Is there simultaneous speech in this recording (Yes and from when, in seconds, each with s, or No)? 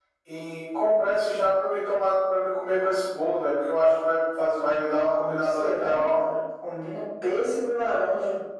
Yes, from 4.6 s